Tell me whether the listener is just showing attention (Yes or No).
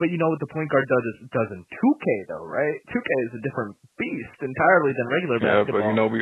No